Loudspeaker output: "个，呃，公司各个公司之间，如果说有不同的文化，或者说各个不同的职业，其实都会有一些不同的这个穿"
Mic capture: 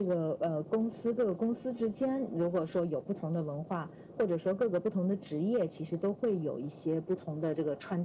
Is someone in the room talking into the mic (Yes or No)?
No